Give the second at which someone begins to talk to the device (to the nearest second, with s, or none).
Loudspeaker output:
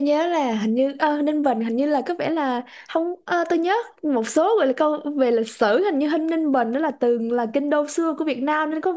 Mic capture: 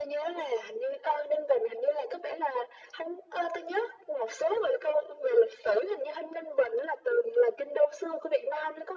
none